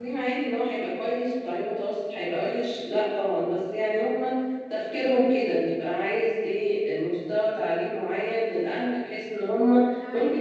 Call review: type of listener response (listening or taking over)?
taking over